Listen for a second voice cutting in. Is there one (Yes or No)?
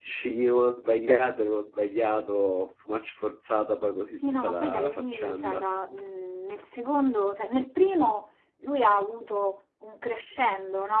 Yes